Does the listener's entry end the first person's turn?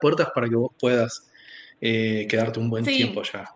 Yes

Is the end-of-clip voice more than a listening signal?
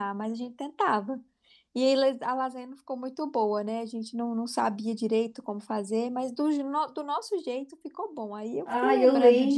Yes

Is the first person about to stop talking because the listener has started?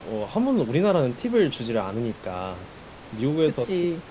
No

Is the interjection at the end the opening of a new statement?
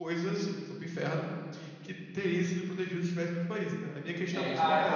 Yes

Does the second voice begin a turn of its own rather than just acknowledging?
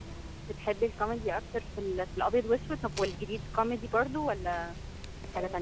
Yes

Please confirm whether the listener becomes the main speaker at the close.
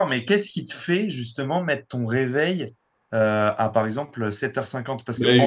Yes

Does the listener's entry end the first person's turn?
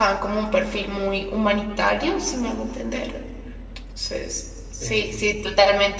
No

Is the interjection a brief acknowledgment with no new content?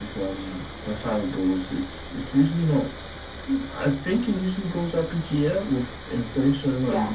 Yes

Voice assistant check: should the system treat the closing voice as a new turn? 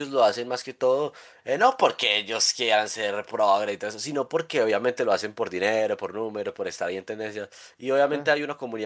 No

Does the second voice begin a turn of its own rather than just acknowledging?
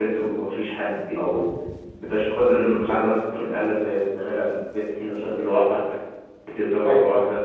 Yes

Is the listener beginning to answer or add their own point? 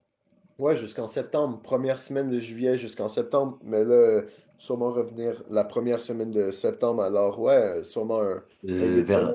Yes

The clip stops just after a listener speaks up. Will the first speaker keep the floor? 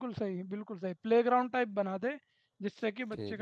Yes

